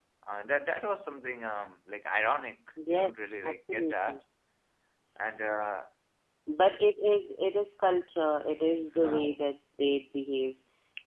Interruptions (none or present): present